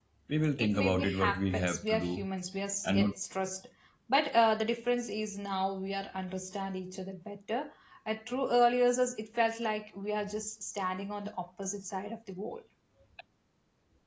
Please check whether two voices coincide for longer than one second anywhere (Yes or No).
Yes